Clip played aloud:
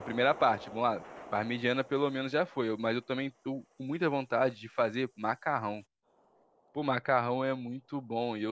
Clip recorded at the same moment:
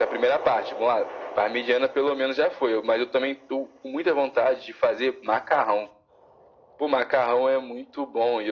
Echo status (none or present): present